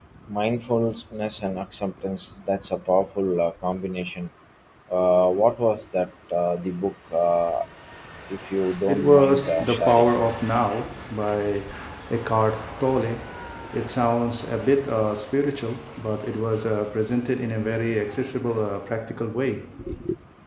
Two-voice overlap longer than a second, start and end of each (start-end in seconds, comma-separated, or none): 8.9-10.1